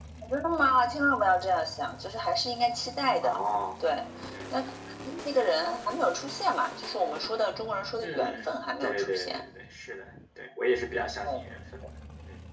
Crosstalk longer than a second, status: present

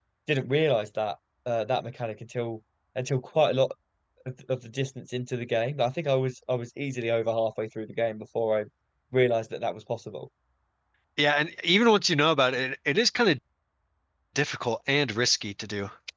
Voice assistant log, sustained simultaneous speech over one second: none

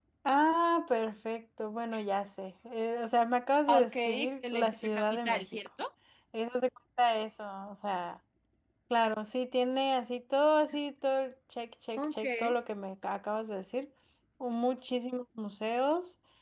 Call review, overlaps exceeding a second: present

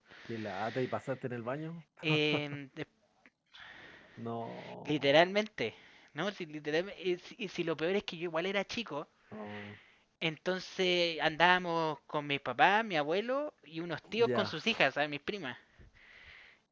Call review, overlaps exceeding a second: none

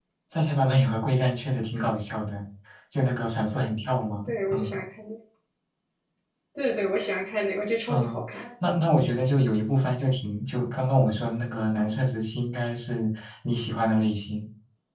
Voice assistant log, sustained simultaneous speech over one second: none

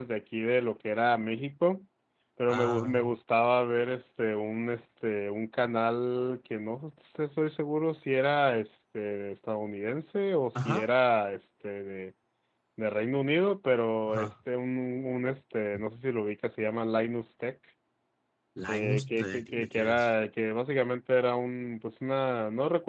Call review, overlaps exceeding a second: present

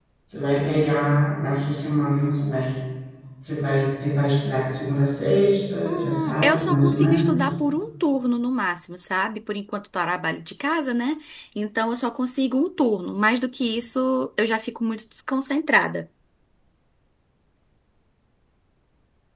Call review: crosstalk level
present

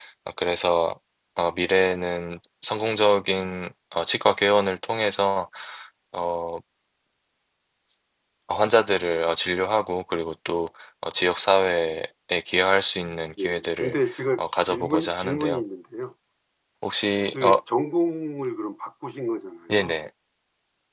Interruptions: present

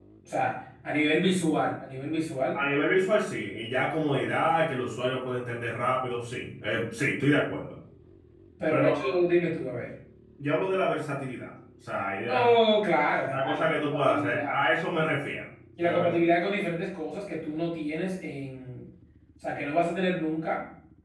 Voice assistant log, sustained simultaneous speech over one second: present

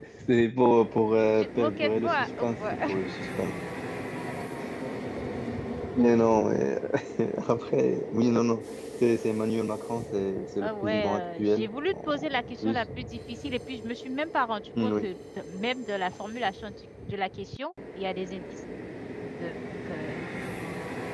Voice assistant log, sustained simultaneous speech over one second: present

